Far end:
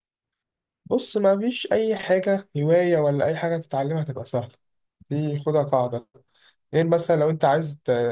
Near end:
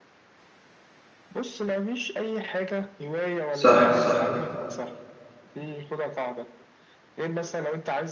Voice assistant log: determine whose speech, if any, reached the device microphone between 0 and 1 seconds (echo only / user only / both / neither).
neither